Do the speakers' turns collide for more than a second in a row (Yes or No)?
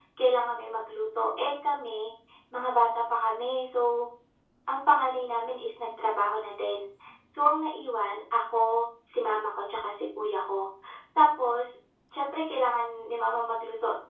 No